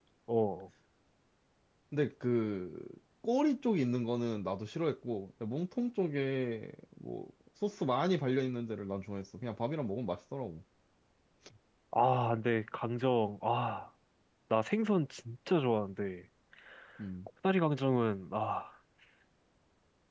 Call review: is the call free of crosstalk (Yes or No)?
Yes